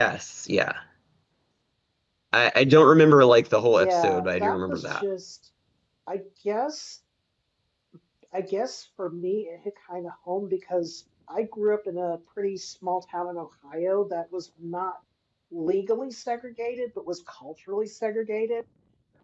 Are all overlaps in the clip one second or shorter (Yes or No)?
No